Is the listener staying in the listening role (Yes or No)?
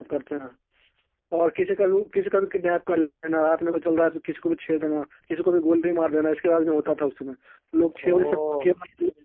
Yes